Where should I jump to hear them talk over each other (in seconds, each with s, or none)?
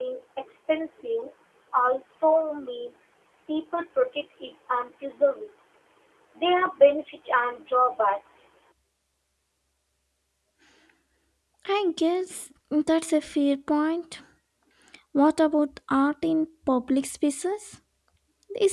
none